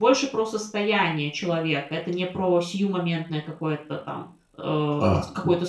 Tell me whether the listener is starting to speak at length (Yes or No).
Yes